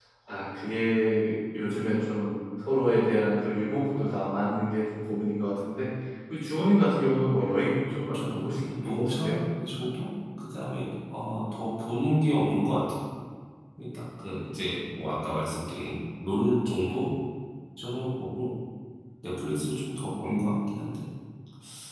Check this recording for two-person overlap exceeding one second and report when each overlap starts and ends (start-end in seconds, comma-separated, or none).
8.1-9.4